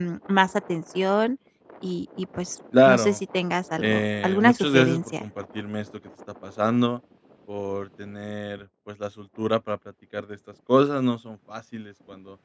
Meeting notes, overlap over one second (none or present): present